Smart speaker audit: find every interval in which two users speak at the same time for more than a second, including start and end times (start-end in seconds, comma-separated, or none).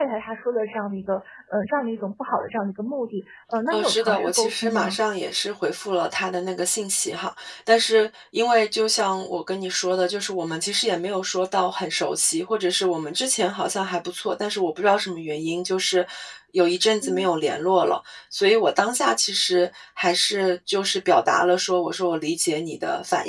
3.7-5.0